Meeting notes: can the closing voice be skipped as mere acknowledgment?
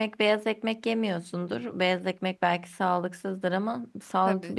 Yes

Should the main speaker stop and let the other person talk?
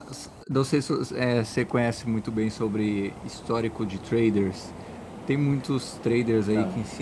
No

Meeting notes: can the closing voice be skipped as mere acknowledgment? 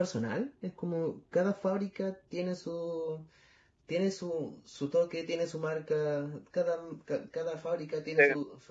No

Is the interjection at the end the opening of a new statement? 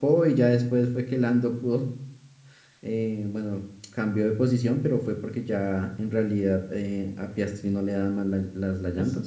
Yes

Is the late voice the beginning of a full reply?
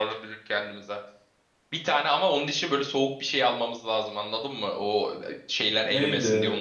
Yes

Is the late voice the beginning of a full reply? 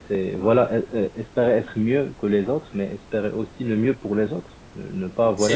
No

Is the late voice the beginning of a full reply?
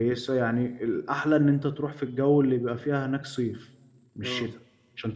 No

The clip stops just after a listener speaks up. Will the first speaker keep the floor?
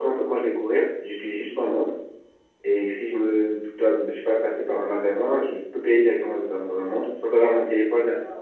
Yes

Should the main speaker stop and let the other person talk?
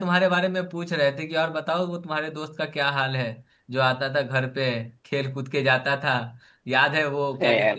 No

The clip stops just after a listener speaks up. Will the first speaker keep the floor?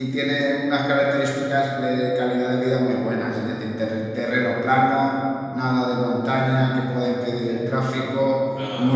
Yes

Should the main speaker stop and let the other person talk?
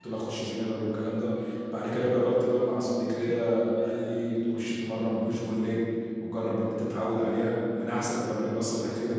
Yes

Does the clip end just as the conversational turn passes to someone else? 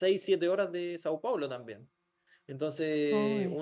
No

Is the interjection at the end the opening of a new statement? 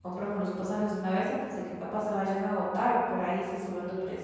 Yes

